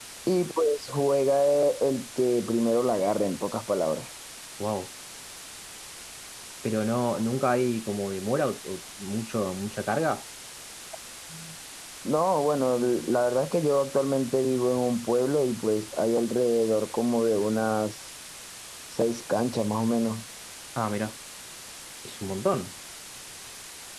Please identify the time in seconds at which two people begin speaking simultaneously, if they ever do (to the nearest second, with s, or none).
none